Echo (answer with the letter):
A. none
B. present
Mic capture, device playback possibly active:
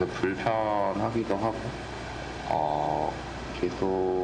B